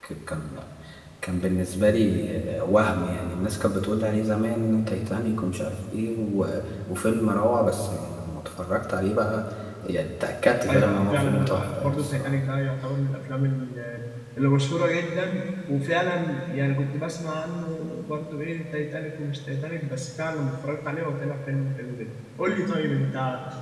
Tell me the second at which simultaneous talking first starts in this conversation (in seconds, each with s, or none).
10.7 s